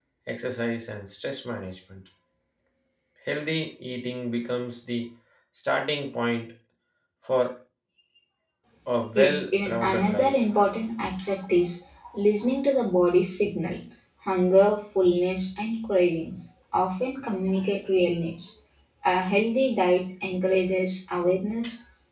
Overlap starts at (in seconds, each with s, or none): 9.2 s